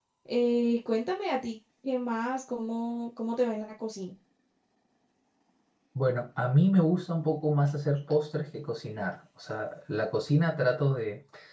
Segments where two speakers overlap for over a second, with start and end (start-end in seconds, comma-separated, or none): none